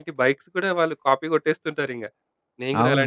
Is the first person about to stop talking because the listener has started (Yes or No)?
Yes